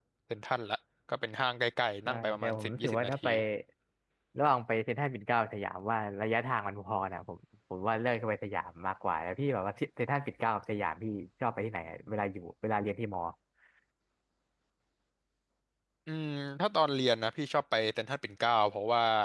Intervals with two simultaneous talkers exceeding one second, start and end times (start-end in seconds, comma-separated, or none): 2.0-3.3